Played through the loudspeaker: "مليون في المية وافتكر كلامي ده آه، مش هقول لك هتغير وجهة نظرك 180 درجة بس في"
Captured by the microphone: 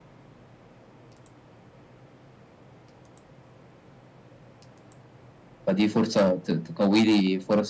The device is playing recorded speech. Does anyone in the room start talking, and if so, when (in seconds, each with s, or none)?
5.7 s